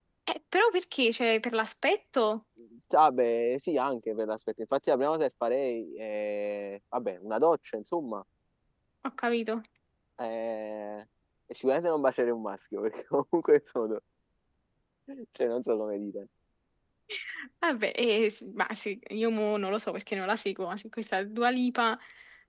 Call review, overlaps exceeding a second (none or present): none